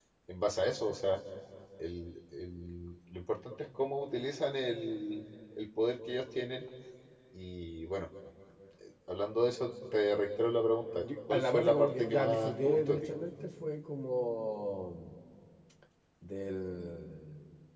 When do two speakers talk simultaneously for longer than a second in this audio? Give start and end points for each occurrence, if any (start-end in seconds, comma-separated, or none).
11.0-13.1